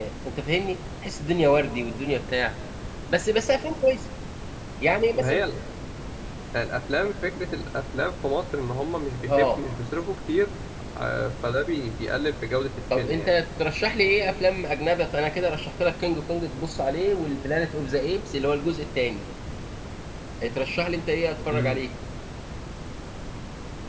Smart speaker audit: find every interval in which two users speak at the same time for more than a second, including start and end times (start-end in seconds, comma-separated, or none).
none